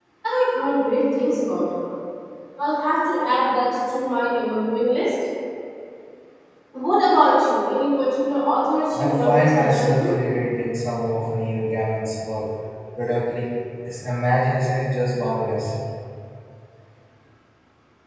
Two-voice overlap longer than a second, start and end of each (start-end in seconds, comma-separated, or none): 8.9-10.1